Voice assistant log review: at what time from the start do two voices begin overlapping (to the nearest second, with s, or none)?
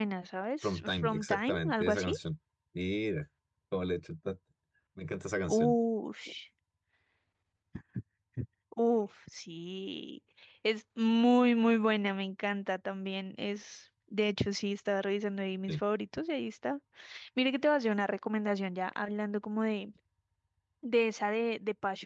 1 s